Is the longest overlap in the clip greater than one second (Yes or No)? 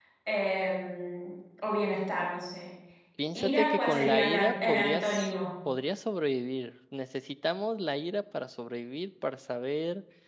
Yes